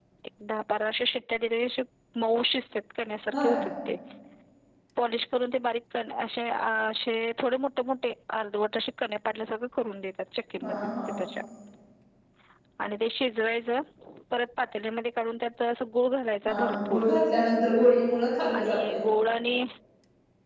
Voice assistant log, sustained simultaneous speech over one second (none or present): none